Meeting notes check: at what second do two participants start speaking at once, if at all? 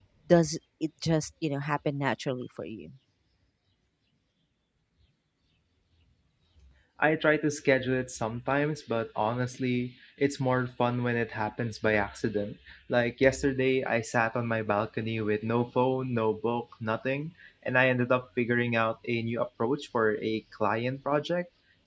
none

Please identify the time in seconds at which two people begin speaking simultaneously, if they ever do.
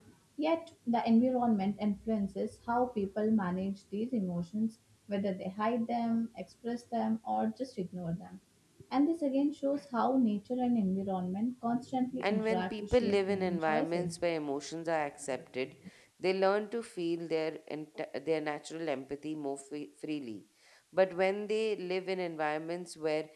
12.2 s

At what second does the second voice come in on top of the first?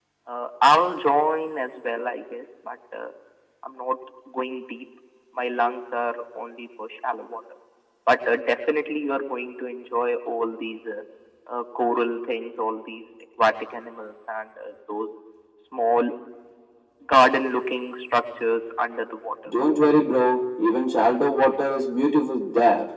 none

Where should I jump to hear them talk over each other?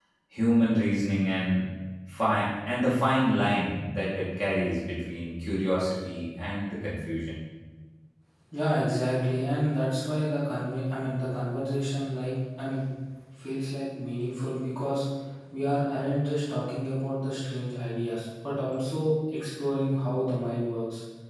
none

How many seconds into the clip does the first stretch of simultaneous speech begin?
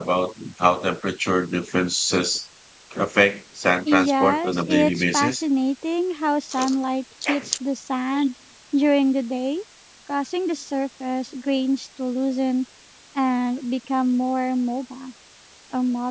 4.1 s

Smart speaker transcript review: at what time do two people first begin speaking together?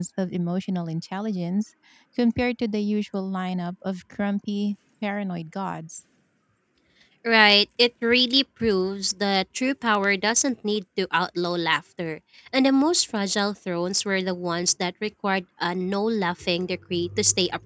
none

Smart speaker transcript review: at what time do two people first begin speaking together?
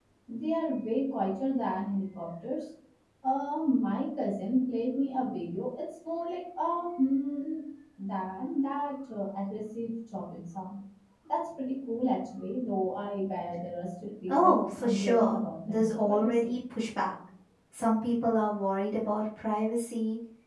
14.3 s

